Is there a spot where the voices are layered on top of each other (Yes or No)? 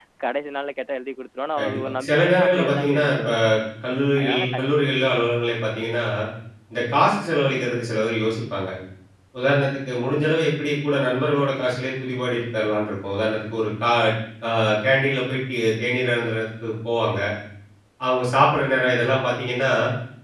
Yes